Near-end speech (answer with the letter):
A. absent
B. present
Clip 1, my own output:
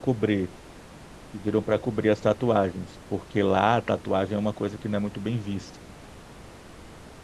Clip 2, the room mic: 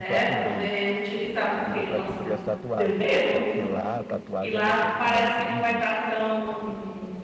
B